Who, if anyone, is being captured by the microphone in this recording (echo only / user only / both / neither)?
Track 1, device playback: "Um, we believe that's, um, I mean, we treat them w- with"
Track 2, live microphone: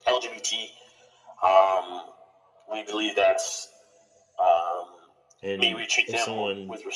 both